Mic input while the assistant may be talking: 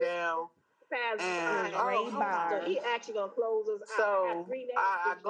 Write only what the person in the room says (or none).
is Ray Barnes.